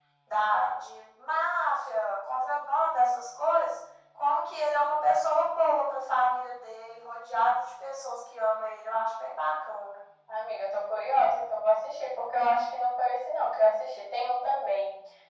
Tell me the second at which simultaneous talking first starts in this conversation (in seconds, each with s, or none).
none